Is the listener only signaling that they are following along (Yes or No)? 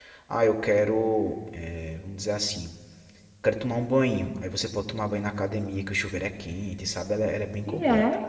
No